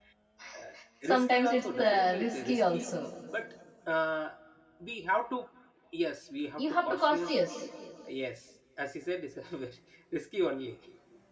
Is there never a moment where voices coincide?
No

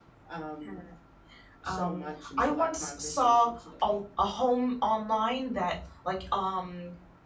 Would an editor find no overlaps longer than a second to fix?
No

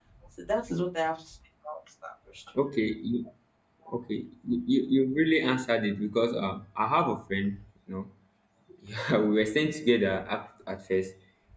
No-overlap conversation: Yes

